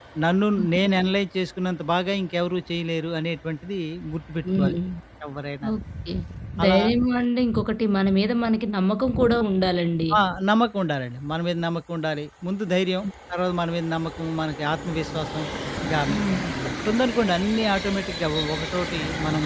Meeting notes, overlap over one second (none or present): none